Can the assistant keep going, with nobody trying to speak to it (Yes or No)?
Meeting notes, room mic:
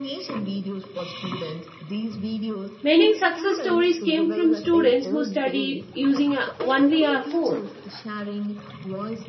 No